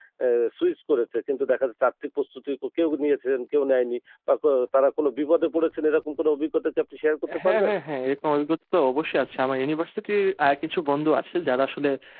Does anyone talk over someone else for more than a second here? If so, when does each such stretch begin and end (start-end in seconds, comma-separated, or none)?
none